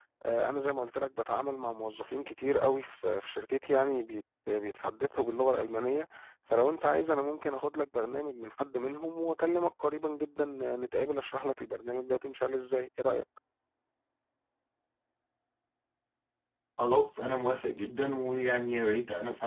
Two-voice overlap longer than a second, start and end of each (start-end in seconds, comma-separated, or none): none